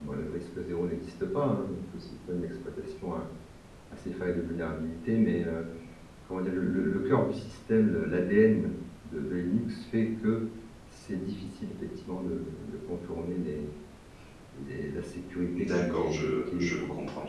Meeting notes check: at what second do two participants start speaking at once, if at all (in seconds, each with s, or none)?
15.5 s